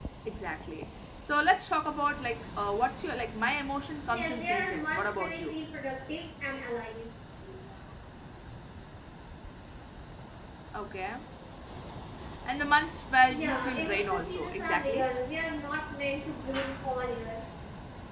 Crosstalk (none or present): present